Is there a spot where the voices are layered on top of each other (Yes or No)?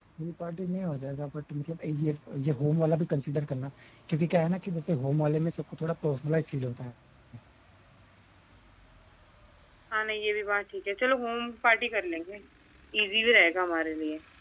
No